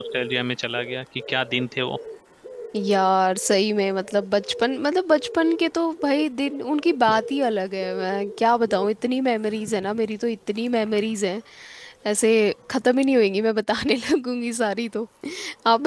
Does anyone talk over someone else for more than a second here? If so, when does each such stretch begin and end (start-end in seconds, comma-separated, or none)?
none